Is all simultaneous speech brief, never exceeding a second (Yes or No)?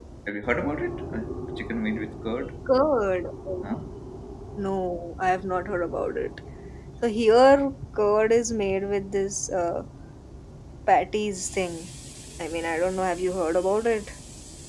Yes